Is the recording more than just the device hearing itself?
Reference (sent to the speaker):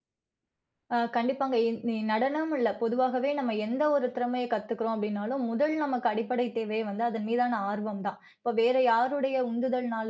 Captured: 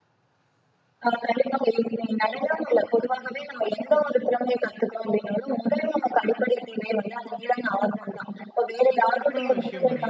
Yes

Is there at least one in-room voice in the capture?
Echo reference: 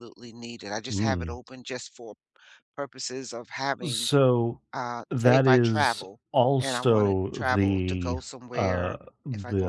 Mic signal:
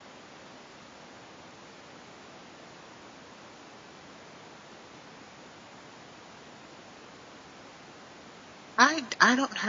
Yes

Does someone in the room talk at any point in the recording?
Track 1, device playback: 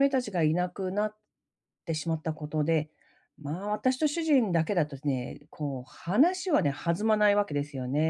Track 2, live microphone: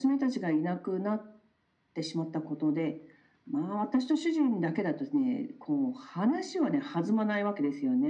No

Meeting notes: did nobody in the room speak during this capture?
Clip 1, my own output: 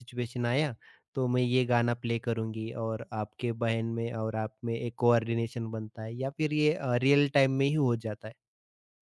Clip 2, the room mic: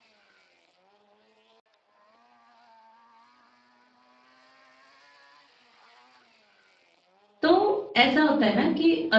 No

